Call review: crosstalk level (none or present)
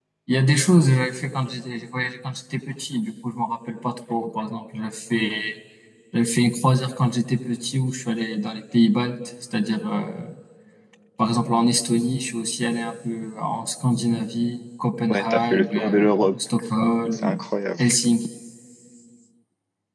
present